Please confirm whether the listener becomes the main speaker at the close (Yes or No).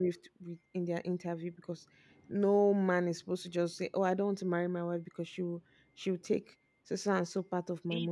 Yes